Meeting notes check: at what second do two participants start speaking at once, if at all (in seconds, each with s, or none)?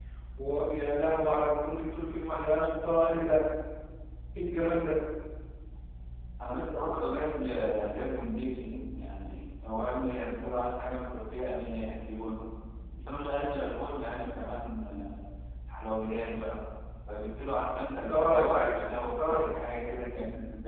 18.1 s